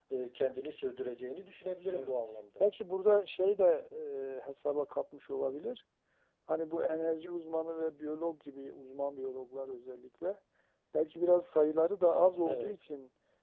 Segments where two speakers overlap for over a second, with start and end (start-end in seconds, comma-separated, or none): none